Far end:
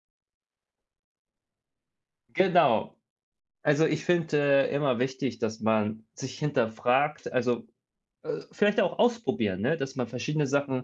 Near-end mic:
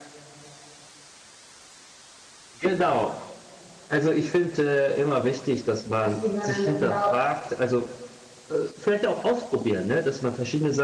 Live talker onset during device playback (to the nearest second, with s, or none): 6 s